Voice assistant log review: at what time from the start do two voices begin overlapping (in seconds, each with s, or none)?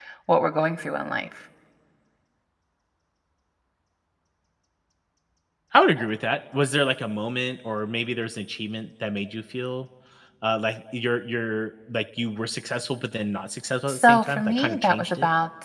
13.9 s